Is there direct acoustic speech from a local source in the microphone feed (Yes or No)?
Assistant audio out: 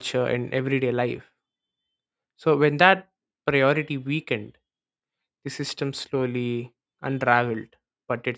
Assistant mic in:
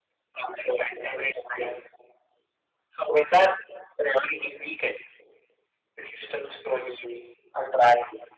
No